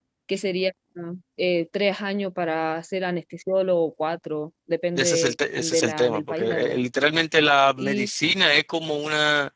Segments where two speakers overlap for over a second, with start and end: 5.0-6.8

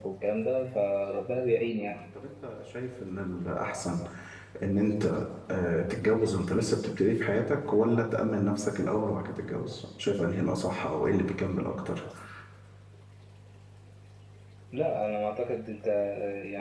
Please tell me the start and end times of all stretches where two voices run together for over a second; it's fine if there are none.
none

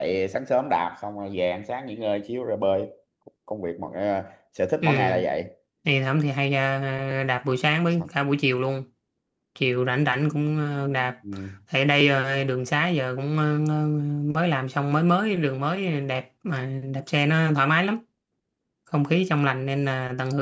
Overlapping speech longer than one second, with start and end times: none

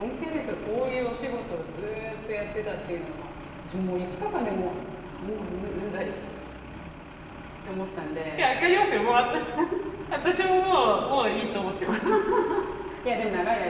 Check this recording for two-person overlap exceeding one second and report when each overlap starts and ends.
none

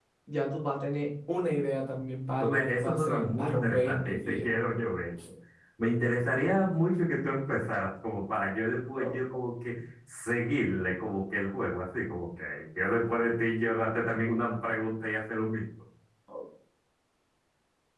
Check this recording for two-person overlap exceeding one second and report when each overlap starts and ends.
2.4-4.5

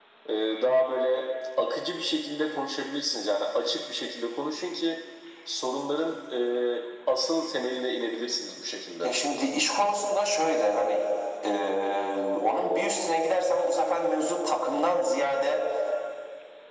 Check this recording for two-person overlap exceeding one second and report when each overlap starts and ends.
none

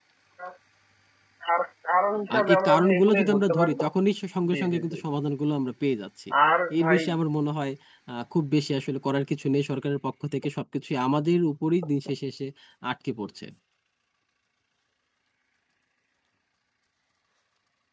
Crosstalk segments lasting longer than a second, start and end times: 2.3-3.7

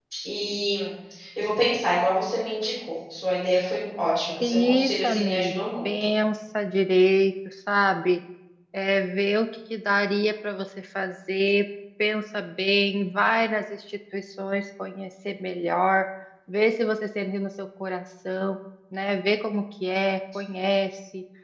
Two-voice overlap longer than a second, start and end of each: 4.4-6.1

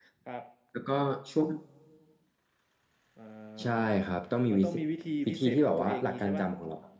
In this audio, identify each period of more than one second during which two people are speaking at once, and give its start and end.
5.2-6.5

